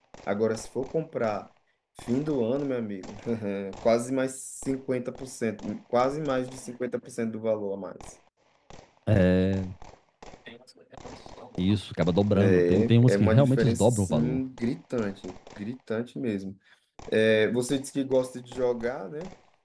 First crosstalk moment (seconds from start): 12.4 s

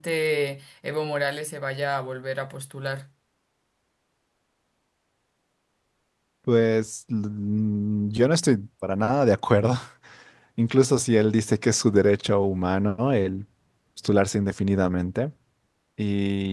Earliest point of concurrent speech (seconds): none

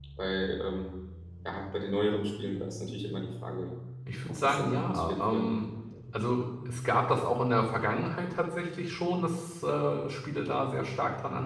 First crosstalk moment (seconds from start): 4.3 s

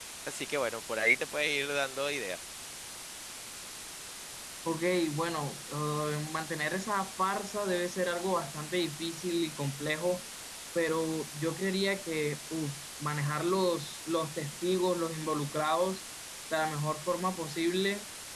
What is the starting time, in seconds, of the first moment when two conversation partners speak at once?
none

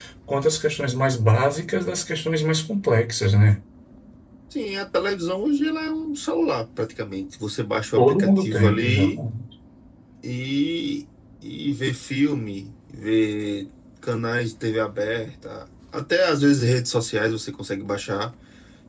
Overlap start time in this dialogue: 8.0 s

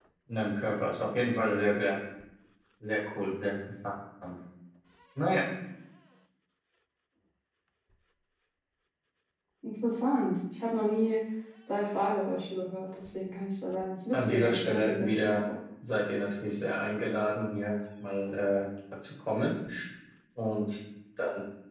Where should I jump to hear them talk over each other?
14.1 s

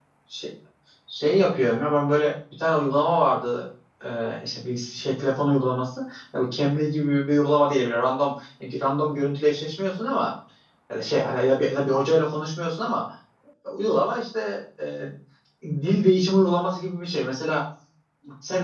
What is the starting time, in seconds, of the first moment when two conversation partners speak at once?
none

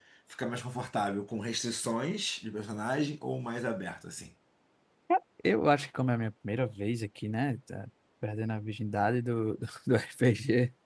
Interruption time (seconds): none

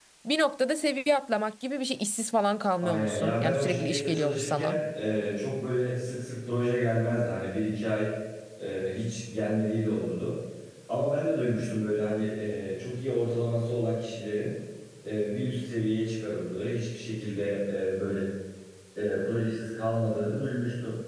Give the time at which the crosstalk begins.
2.8 s

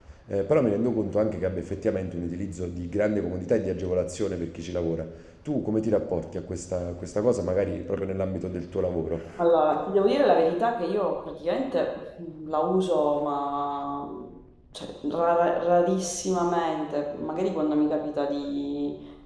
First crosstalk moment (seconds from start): none

